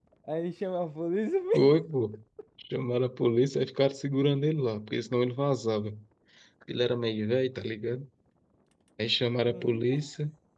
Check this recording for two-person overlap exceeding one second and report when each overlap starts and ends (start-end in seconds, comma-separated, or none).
none